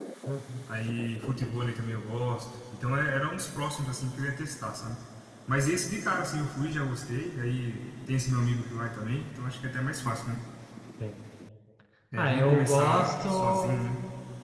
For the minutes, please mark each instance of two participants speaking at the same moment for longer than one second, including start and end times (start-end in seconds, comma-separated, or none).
12.2-13.8